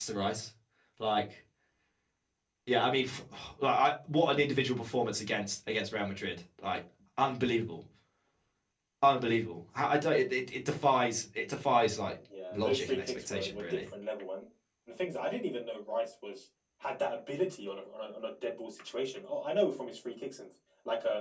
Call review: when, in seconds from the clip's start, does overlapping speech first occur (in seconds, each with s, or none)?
12.3 s